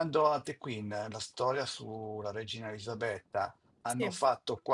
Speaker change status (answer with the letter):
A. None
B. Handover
A